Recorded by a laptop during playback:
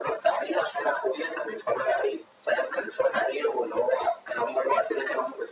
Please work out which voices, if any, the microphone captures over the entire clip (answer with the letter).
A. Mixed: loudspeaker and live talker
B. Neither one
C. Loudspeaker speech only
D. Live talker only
C